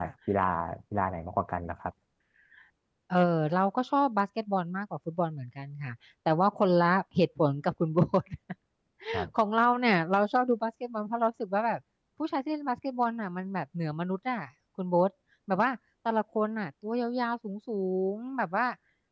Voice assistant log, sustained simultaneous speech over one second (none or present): none